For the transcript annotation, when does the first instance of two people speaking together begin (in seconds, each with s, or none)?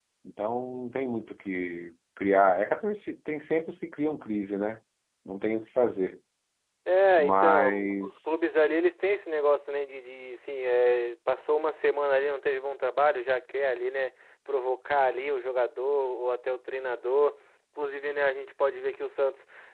7.2 s